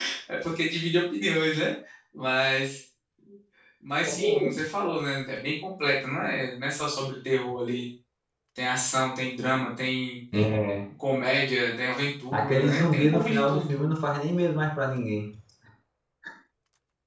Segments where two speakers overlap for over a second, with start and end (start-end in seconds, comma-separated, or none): 12.3-13.8